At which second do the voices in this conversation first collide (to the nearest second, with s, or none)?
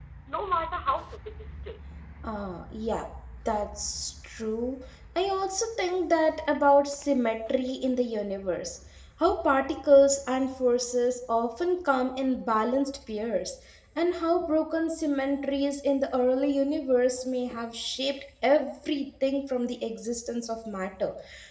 none